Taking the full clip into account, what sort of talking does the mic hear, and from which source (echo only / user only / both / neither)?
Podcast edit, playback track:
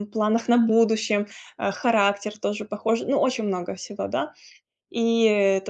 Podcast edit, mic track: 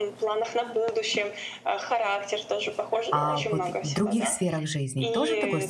both